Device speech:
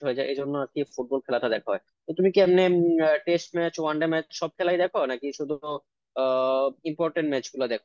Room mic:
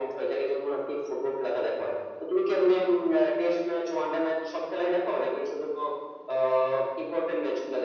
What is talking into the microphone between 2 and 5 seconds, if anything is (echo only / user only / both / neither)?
echo only